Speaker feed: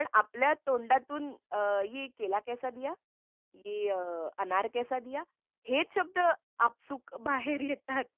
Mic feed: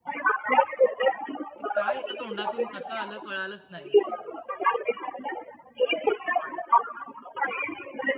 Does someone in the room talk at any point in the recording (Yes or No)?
Yes